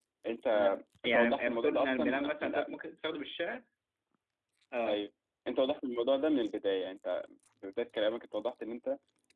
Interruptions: present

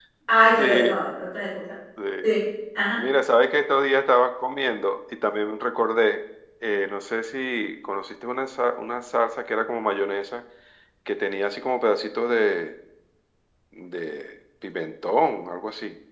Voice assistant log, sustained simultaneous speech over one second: none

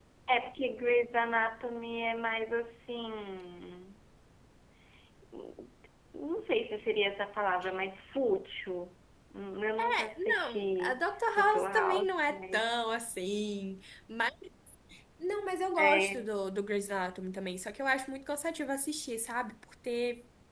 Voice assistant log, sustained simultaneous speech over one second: present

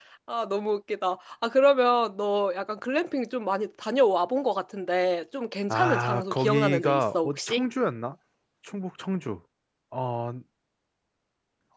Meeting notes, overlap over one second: present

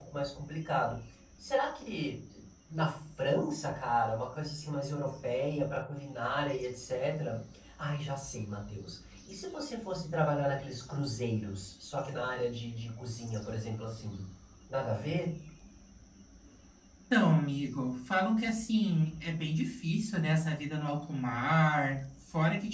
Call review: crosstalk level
none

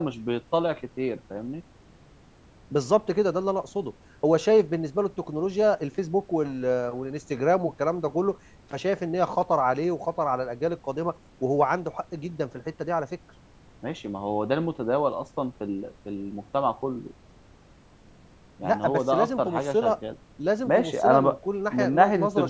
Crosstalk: present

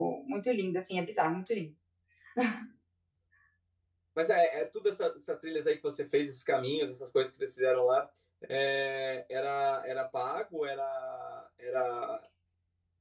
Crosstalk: none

